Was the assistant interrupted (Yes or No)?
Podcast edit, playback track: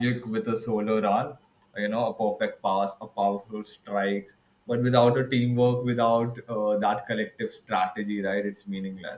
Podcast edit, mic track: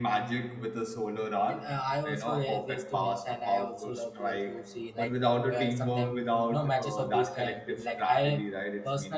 Yes